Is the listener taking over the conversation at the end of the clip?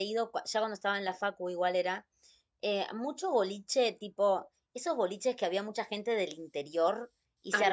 No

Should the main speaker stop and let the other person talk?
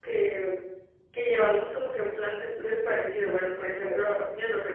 No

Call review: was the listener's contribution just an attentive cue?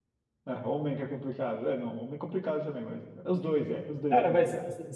No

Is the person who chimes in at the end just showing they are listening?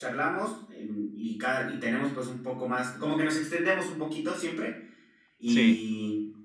Yes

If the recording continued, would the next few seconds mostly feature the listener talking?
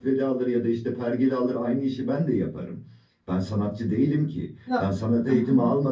No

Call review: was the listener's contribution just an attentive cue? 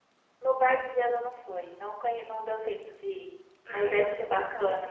No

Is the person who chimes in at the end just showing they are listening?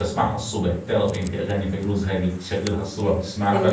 No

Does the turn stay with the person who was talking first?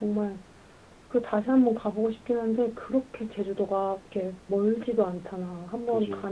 Yes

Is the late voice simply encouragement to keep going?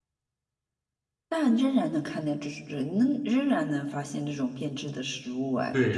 No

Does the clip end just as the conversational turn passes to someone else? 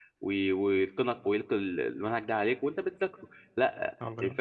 No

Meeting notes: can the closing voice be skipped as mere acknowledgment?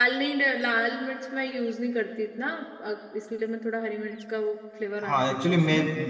No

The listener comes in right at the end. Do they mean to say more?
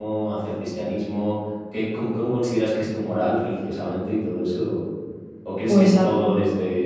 No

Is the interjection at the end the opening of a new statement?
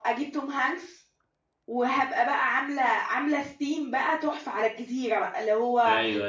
No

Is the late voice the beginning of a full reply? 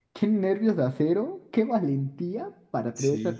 No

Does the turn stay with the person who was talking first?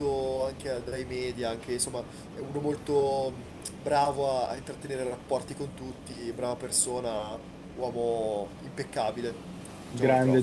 No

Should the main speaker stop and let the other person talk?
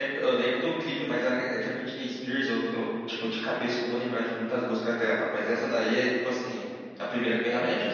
Yes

